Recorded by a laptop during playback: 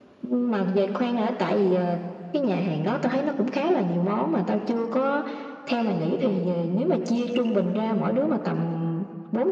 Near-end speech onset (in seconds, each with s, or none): none